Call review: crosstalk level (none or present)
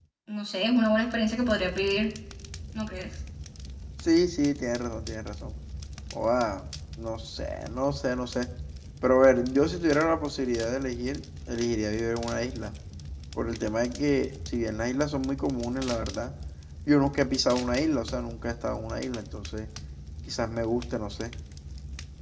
none